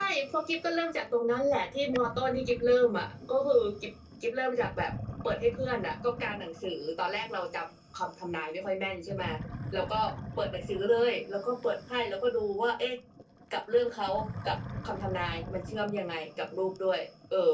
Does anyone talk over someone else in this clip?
No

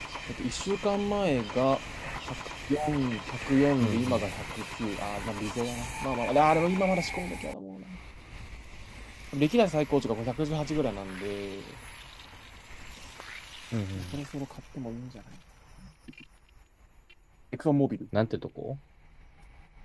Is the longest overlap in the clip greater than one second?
No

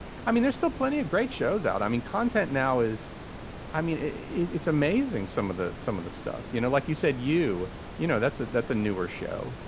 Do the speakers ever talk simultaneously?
No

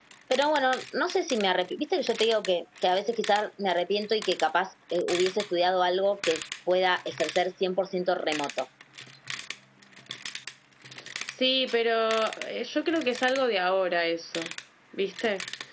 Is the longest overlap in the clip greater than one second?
No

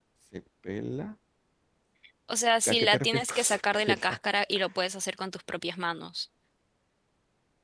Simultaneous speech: Yes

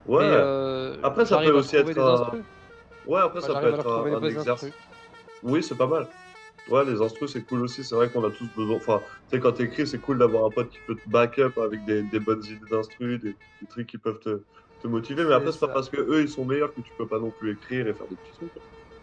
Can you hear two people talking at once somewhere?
Yes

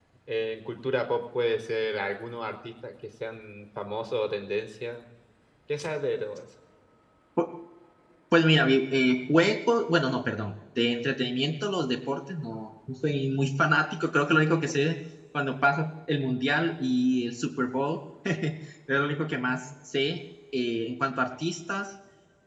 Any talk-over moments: No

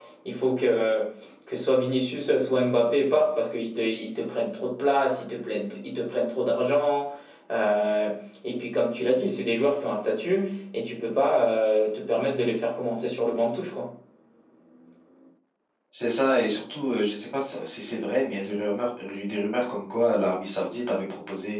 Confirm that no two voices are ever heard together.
Yes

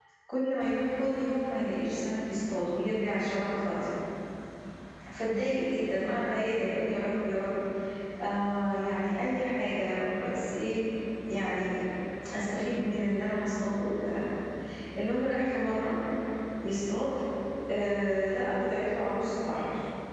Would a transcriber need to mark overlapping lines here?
No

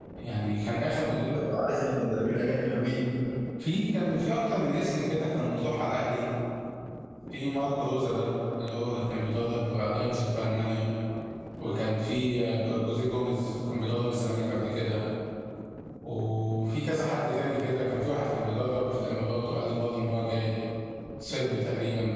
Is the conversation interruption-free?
Yes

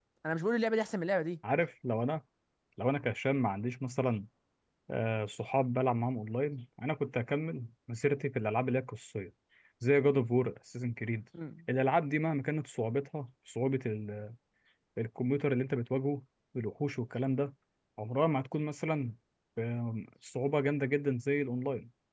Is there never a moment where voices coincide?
Yes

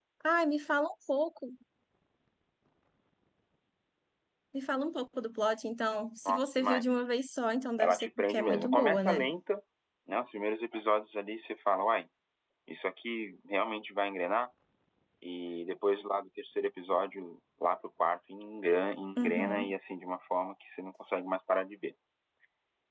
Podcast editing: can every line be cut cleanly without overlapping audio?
No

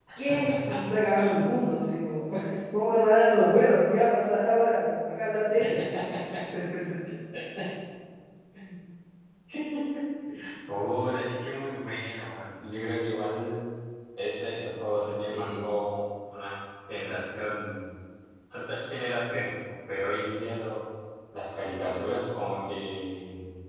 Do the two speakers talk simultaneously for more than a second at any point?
No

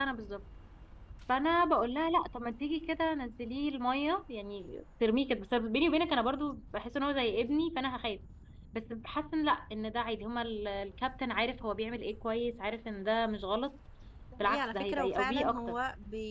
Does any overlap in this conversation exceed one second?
Yes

